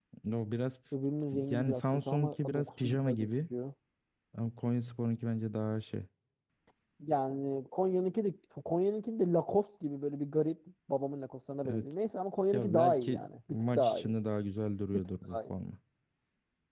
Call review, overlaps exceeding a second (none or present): present